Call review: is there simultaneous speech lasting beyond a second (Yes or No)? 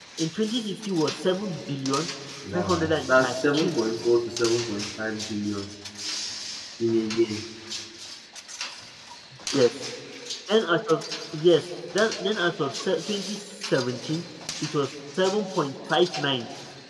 Yes